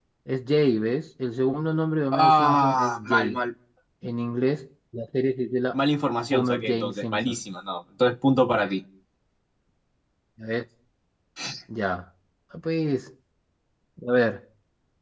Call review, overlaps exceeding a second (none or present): present